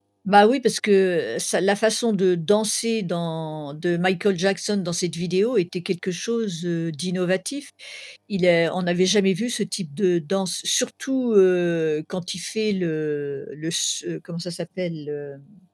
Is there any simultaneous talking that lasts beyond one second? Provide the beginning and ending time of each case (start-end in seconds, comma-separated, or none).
none